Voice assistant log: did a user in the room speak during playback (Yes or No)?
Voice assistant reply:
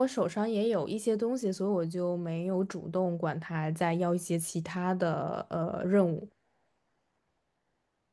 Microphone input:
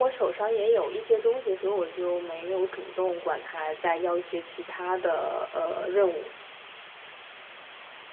No